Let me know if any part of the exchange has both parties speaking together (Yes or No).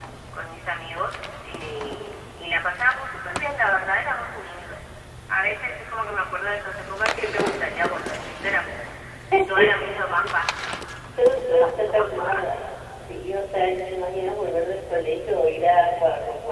Yes